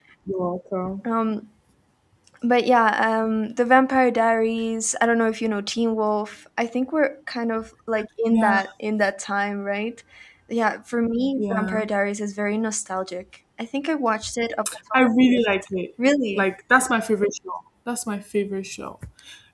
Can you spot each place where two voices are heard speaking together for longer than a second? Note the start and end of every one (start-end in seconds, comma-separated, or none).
none